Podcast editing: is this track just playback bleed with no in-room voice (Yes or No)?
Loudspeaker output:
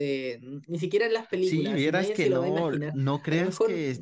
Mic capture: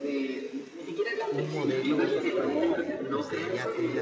No